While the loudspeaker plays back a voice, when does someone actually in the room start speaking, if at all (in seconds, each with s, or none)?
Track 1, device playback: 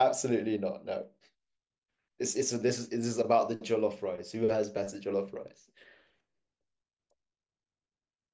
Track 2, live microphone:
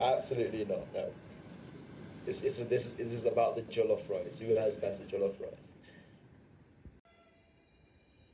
none